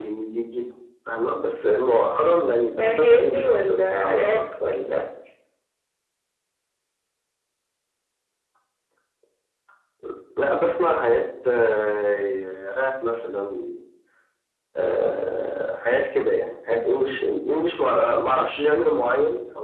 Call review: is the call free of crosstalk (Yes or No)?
No